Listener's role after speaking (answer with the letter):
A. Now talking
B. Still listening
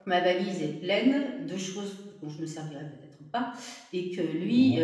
B